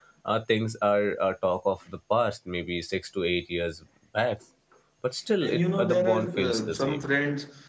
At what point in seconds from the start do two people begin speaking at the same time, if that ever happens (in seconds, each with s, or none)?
5.4 s